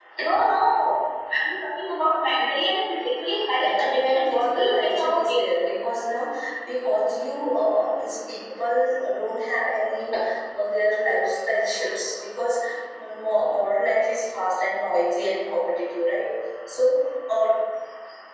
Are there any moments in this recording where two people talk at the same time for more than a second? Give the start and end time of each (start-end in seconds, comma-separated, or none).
3.6-5.4